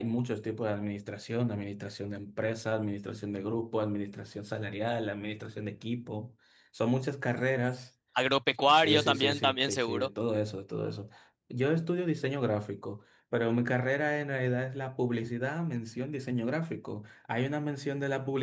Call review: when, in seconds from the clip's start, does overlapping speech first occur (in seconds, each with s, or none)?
8.7 s